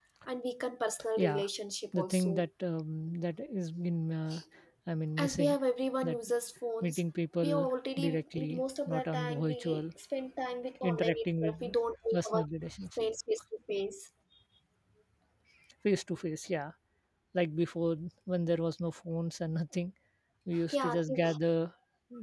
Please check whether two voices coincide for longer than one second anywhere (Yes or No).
Yes